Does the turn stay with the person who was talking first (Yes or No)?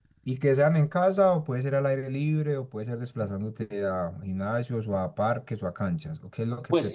No